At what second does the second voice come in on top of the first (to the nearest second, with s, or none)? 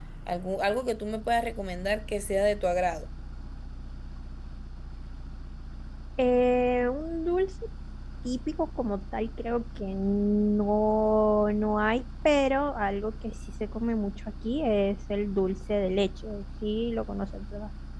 none